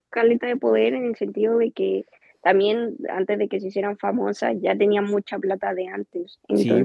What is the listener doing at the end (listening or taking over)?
taking over